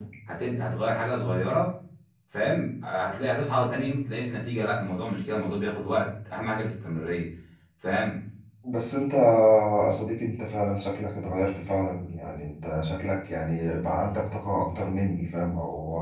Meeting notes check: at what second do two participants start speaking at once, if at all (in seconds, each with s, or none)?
none